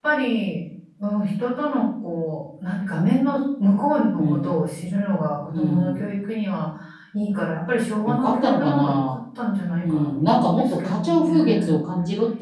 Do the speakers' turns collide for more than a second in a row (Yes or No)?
Yes